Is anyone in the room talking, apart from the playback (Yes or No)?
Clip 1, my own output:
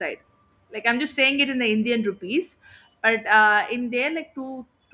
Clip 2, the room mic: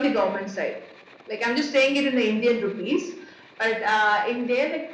No